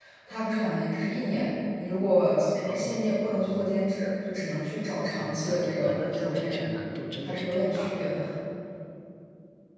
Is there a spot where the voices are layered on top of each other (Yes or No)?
Yes